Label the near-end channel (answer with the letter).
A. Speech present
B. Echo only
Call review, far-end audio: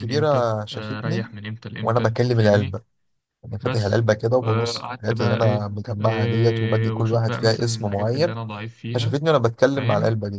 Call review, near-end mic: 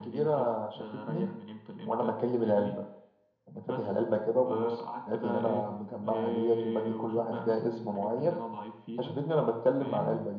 B